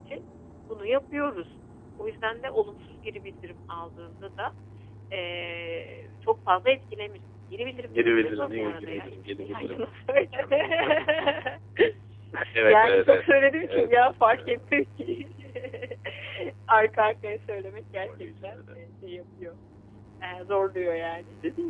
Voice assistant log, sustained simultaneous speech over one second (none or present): present